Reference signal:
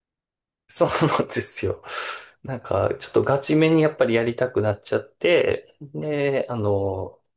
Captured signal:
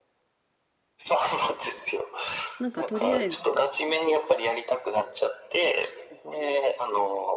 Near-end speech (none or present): present